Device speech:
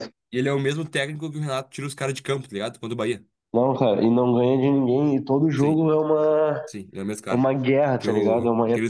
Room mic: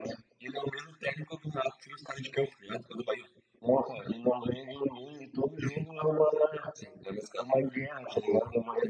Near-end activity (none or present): none